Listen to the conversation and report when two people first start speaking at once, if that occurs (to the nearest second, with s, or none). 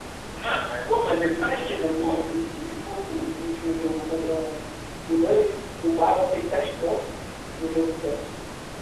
1 s